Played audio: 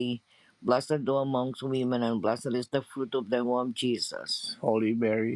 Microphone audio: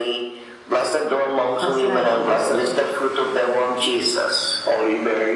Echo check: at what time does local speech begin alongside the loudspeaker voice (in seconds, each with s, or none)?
1.6 s